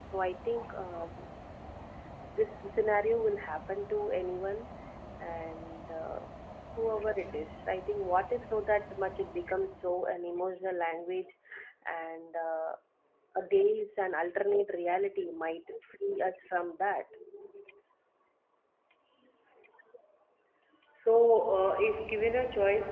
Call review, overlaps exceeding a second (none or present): none